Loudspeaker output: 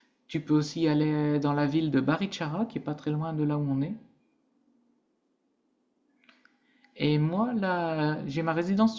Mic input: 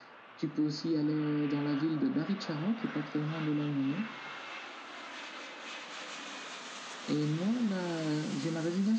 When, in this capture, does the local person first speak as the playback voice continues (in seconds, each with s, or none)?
none